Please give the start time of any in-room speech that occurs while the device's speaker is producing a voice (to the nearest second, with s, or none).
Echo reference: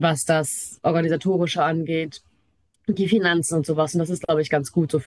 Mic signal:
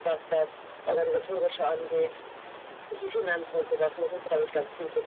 none